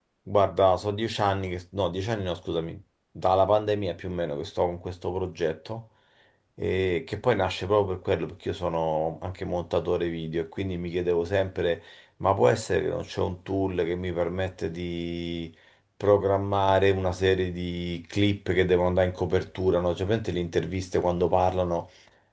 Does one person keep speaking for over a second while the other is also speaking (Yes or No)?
No